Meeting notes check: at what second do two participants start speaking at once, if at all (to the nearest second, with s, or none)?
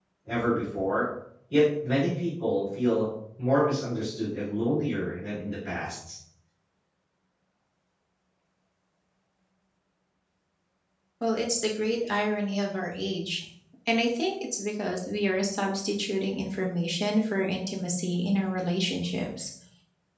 none